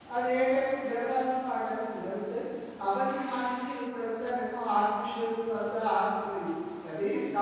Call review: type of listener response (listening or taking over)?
taking over